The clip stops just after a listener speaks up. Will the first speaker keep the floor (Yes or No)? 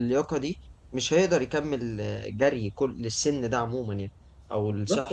No